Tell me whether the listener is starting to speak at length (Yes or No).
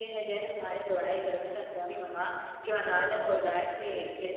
No